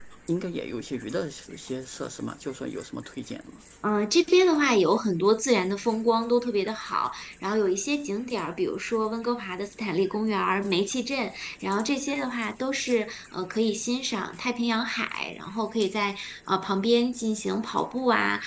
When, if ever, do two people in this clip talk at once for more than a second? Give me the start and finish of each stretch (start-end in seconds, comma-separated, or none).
none